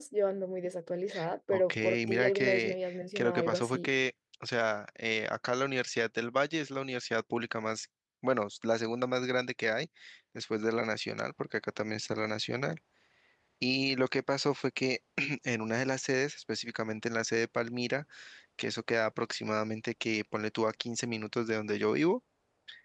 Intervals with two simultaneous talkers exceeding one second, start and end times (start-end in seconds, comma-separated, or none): 1.5-3.9